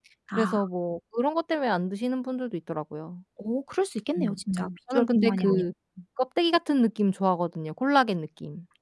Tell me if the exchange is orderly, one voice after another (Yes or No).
No